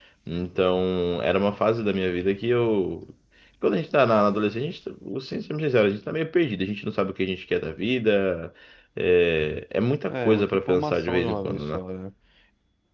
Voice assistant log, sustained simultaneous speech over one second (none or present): present